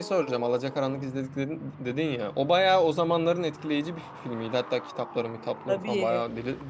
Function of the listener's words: listening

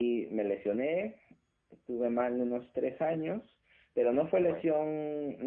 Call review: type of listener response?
listening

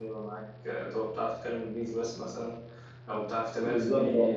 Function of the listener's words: listening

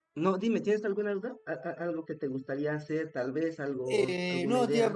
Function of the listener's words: taking over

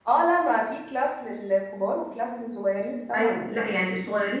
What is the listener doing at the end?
taking over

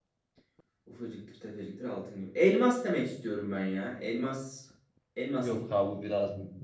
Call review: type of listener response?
taking over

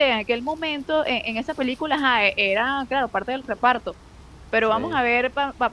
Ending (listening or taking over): listening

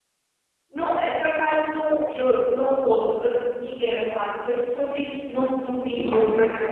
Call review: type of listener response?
listening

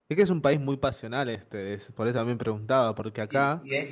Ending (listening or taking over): taking over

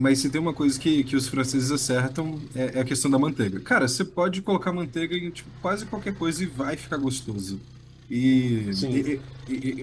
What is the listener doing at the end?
listening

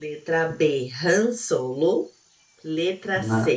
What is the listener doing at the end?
listening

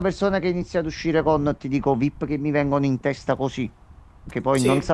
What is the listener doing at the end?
listening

